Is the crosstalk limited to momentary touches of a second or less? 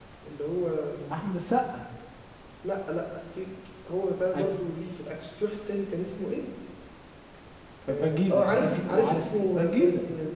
No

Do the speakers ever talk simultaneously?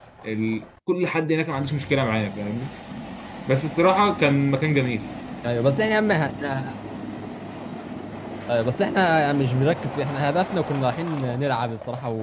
No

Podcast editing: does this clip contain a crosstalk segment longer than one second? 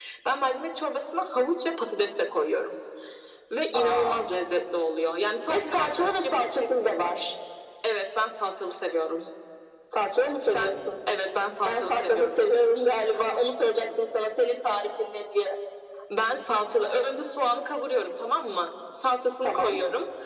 Yes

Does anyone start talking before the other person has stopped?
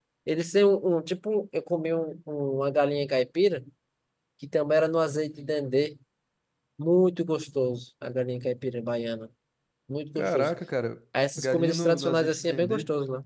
Yes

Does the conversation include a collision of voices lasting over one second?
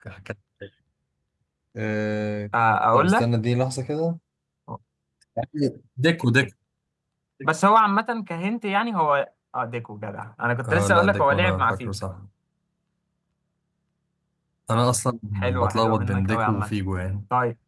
Yes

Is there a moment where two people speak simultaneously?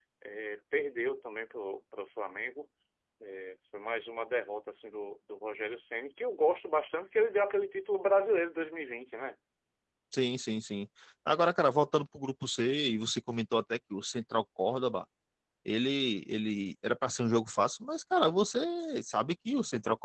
No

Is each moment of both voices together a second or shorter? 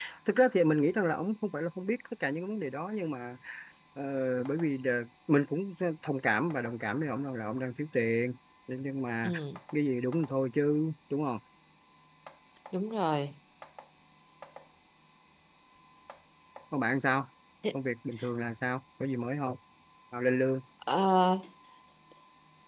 Yes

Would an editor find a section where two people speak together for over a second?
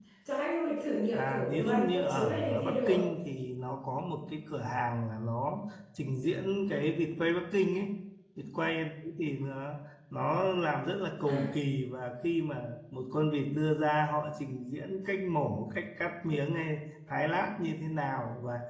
Yes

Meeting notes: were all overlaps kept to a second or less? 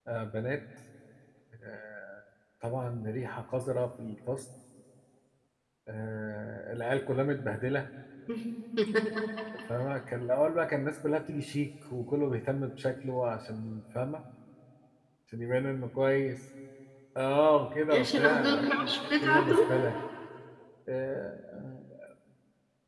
No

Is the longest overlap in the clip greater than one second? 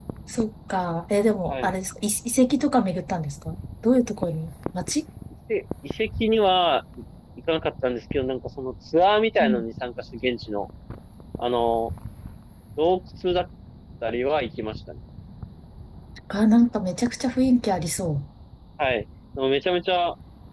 No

